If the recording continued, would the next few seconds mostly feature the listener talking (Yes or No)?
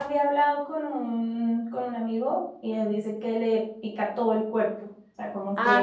No